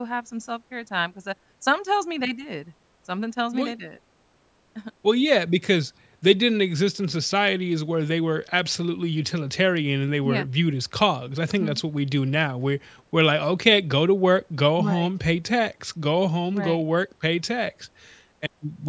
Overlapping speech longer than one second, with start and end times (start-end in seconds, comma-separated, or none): none